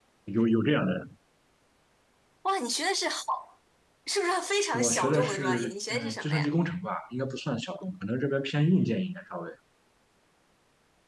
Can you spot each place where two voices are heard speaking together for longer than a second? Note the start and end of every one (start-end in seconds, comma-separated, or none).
4.7-6.5